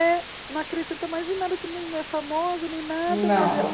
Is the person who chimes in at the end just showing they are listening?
Yes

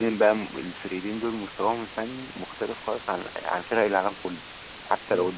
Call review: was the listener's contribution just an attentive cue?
Yes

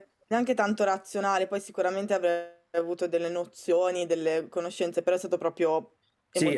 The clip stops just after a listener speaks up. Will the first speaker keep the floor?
No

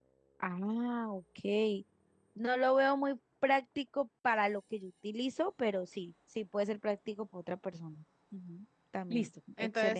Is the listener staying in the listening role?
No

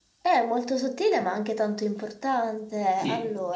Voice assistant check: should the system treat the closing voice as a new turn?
Yes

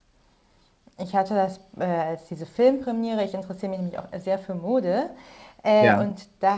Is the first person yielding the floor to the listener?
No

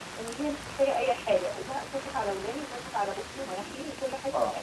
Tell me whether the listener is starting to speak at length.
No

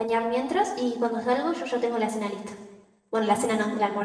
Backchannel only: No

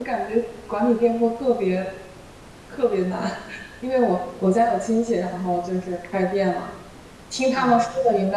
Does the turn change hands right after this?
No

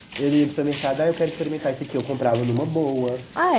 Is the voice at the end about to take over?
No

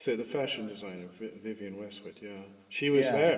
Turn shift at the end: Yes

